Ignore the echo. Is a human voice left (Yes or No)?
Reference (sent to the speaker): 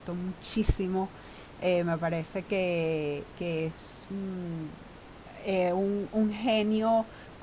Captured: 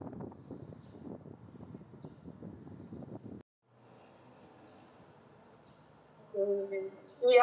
Yes